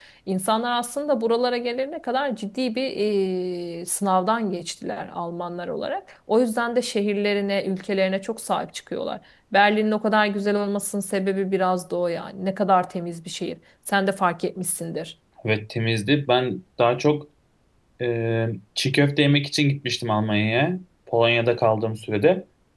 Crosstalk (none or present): none